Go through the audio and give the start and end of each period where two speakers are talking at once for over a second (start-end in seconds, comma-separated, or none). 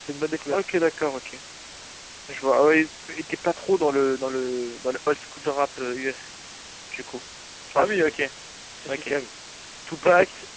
none